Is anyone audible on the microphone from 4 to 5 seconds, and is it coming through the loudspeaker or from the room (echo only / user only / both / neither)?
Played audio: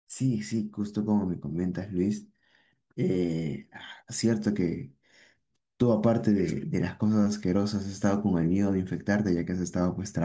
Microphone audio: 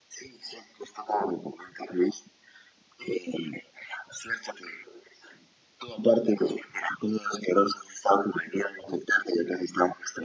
echo only